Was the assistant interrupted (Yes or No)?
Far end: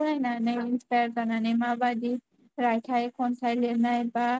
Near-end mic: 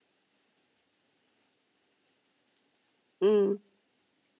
Yes